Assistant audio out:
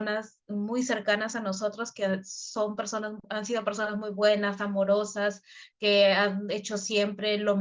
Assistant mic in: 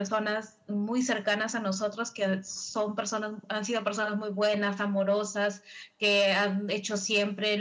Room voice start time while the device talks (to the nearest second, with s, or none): none